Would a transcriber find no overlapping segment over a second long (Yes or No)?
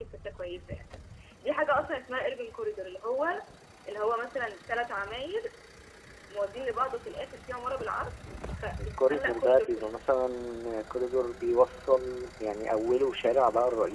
No